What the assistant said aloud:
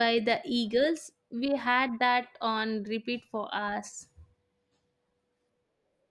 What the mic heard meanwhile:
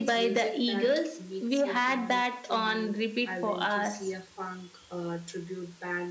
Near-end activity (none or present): present